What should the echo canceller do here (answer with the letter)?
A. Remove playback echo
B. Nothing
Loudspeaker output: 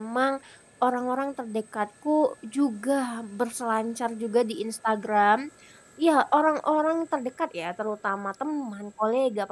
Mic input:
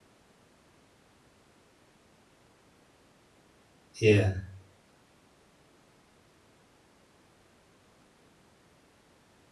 B